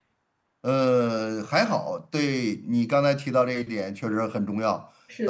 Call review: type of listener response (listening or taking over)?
listening